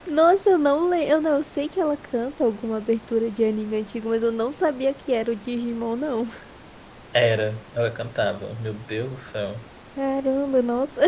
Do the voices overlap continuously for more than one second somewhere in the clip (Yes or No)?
No